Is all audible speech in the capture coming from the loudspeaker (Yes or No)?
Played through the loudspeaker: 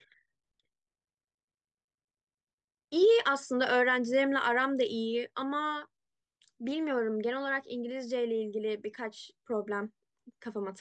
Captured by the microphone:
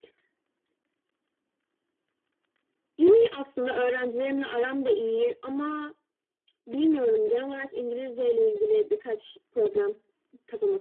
Yes